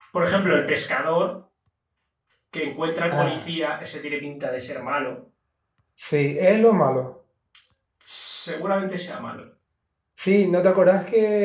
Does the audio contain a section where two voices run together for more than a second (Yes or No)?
No